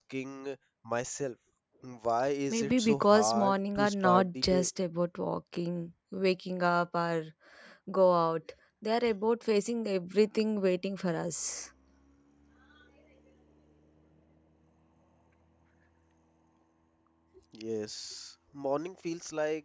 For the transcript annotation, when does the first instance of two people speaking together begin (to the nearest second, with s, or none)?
3 s